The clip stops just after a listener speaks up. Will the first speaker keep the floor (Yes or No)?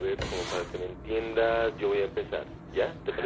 No